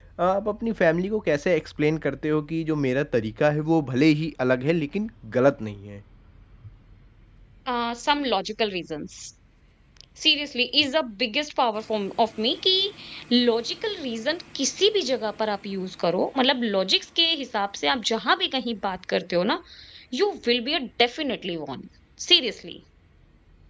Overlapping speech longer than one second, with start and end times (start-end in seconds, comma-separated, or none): none